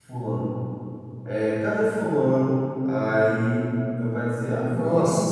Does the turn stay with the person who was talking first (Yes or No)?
Yes